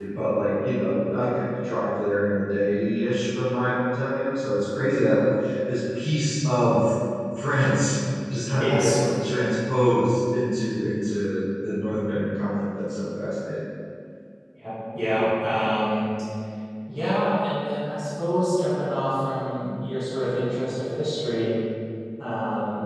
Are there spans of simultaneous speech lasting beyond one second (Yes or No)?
No